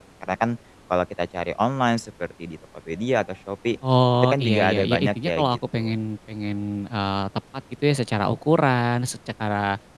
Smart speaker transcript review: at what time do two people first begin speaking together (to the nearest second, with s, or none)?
4 s